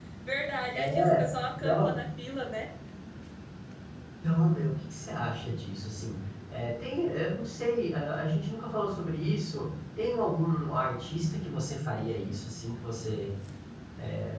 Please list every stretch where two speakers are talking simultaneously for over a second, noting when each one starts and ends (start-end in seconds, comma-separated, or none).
none